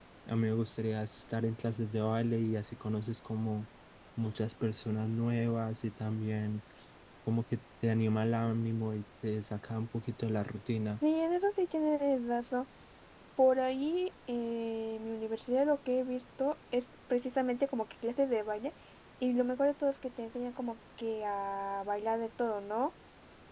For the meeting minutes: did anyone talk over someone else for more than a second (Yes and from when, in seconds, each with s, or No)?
No